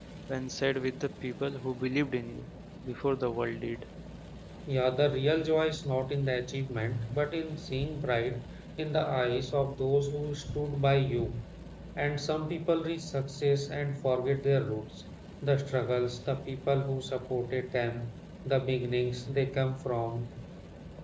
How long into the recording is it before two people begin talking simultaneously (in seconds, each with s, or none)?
none